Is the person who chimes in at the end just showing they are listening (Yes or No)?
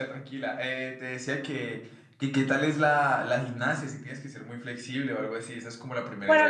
No